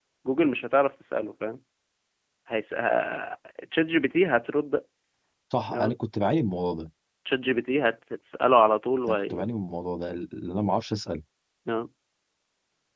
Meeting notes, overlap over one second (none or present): none